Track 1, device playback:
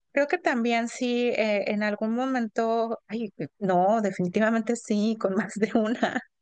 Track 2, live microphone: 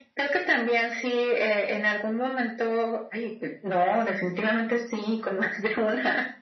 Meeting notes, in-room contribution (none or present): none